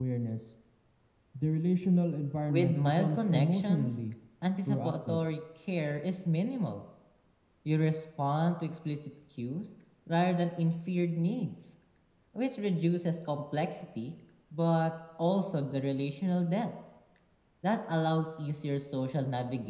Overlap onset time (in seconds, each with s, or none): 2.5 s